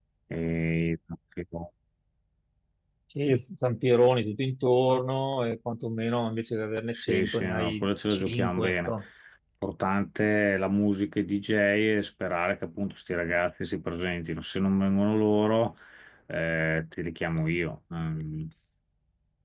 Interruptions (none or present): present